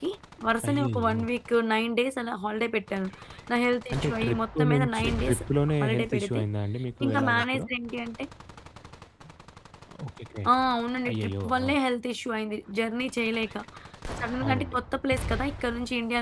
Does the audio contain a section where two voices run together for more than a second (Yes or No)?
Yes